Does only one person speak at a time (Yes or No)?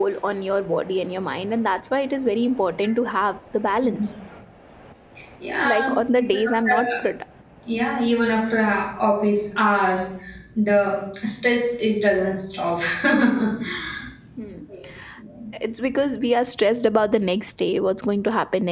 No